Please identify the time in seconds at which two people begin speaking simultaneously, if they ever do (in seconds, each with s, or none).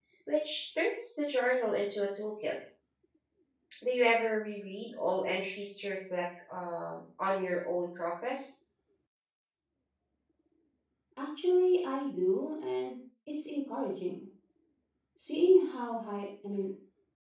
none